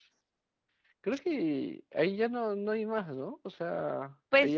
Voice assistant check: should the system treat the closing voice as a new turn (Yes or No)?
Yes